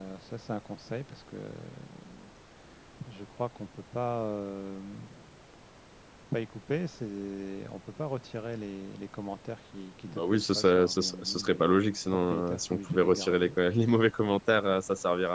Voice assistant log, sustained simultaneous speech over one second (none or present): present